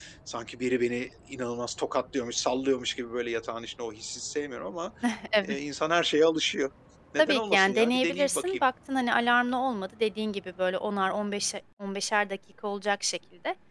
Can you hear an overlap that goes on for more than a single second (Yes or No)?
Yes